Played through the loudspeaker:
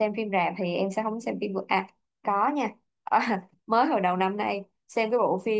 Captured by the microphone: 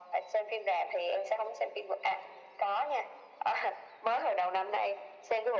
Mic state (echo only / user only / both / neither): echo only